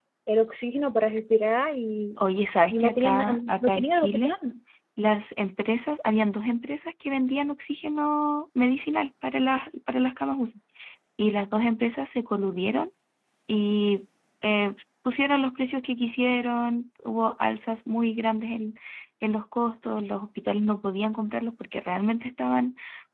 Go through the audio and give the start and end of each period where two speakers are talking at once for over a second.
2.7-4.3

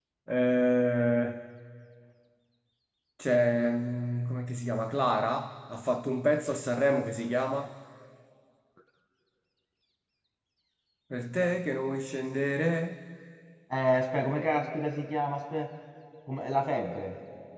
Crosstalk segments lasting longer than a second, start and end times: none

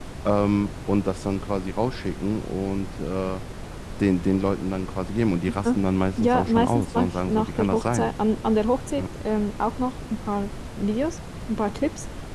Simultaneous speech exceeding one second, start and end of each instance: 6.2-8.1

